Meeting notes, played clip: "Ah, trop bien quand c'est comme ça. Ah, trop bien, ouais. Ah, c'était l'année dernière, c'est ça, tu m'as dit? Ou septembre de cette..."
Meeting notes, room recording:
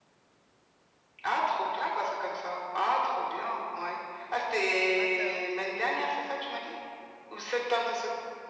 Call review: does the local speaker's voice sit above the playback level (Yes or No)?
No